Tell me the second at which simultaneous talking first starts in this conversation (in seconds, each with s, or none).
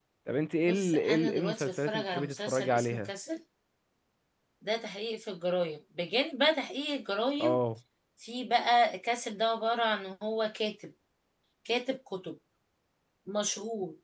0.6 s